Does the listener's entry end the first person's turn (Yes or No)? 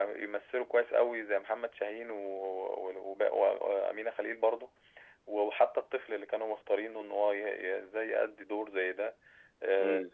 No